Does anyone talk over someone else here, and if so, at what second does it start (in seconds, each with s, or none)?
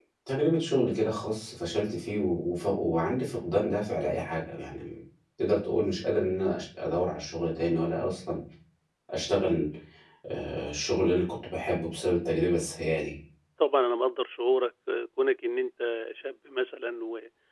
none